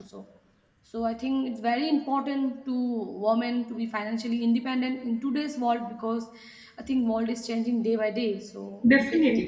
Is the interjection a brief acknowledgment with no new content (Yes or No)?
No